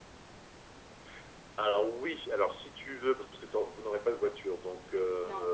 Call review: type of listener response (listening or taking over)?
listening